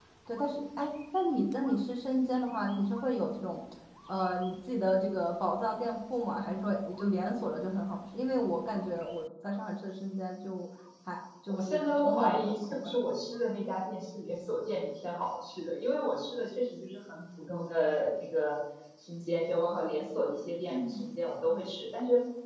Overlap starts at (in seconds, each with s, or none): 11.5 s